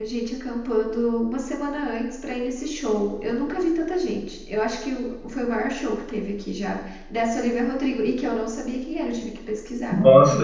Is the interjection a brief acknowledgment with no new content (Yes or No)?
No